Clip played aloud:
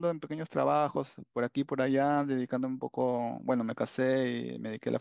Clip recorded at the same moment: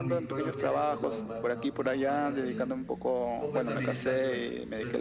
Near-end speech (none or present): present